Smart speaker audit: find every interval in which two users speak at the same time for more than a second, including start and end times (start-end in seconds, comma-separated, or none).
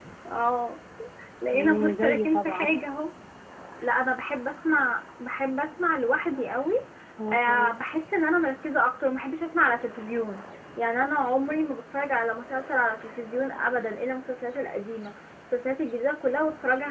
1.5-2.7